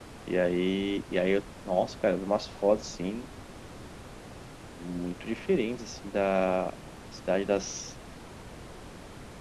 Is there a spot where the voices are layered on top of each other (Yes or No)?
No